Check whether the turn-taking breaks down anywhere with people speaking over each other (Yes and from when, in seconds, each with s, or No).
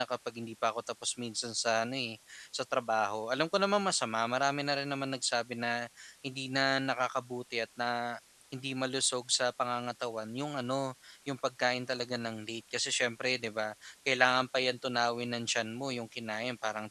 No